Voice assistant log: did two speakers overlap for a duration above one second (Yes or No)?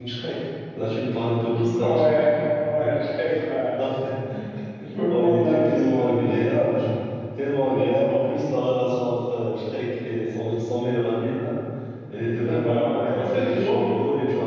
Yes